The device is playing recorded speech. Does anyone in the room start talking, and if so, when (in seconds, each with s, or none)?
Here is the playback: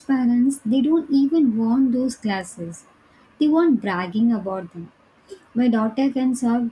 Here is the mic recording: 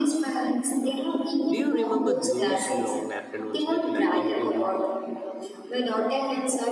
1.5 s